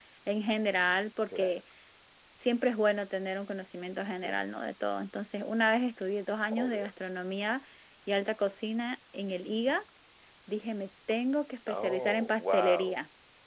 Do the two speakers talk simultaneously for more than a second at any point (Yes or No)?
Yes